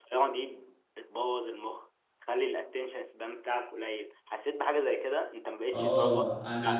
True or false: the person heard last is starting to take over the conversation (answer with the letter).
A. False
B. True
B